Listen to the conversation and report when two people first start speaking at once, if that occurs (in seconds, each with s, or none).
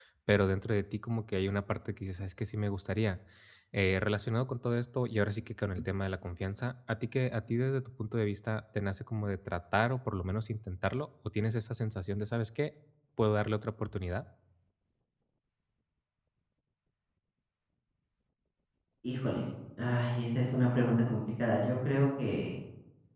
none